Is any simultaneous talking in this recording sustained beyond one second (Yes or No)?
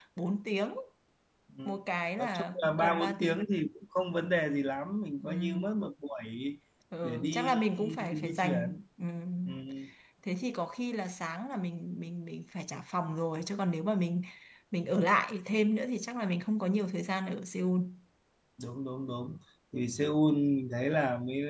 Yes